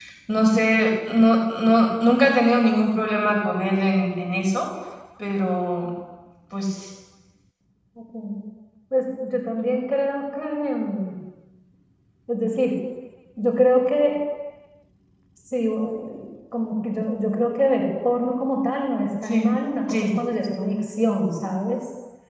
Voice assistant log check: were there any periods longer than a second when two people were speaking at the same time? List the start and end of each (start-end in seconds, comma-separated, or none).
none